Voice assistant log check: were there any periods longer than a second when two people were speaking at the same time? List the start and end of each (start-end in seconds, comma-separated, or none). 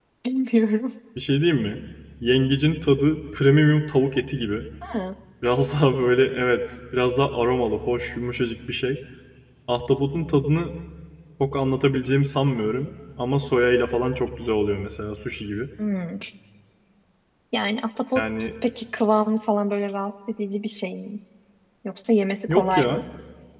none